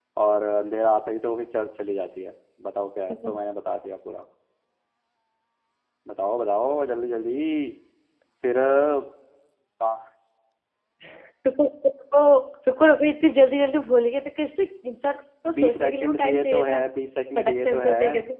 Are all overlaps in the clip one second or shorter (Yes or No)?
No